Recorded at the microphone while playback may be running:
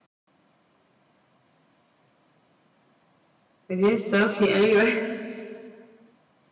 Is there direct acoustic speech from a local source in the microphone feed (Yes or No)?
Yes